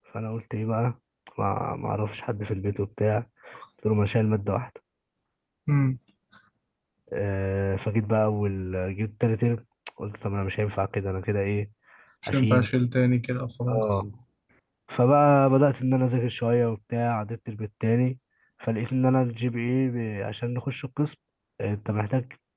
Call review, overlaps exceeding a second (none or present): none